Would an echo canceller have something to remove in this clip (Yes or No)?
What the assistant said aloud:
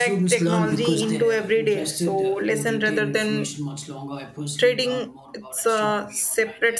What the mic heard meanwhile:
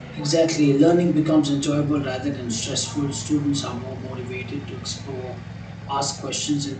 No